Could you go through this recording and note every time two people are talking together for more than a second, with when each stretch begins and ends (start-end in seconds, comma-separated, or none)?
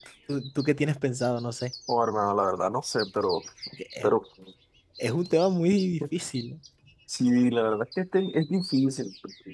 none